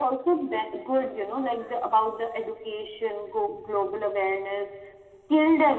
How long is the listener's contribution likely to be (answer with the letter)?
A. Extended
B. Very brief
B